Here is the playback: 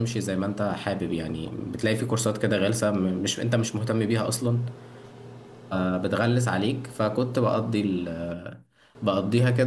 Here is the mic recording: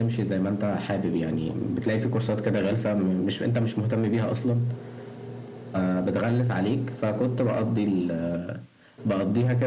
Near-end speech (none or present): none